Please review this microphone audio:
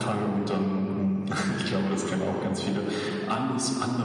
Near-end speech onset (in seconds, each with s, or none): none